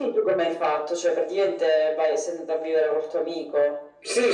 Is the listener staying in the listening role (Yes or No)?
No